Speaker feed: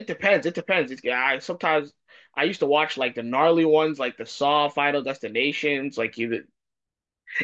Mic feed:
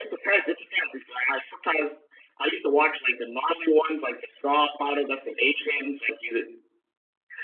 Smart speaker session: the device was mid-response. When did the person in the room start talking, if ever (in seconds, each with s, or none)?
none